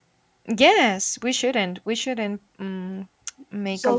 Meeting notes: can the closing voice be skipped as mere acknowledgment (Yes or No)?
No